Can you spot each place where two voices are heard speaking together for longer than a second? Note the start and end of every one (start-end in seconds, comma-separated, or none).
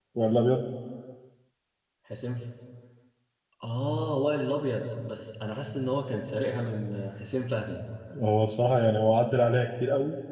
none